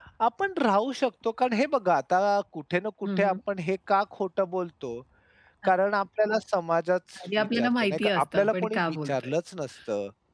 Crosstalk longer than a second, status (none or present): present